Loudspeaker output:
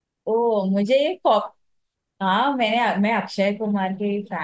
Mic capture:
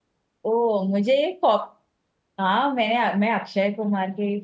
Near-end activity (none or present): none